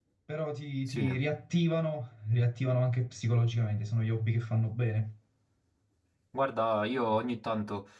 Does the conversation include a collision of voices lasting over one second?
No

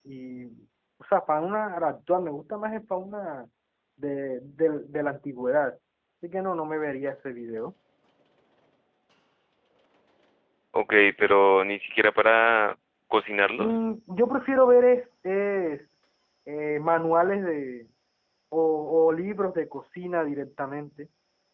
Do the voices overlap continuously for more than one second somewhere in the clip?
No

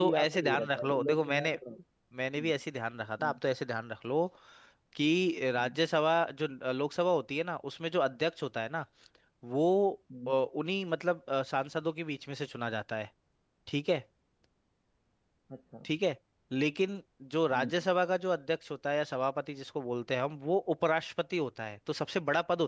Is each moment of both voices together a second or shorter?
No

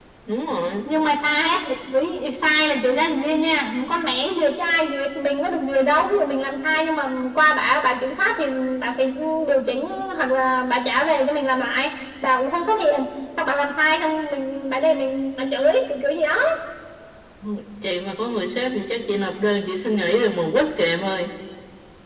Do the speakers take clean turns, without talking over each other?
Yes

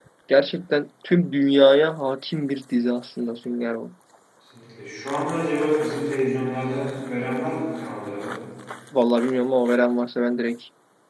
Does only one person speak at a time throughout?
Yes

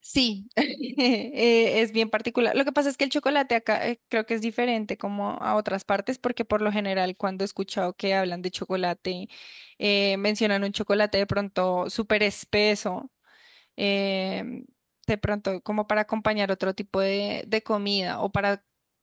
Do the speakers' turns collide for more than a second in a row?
No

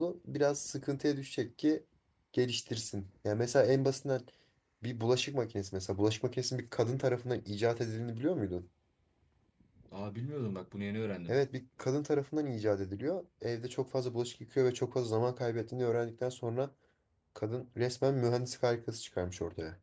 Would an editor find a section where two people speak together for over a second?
No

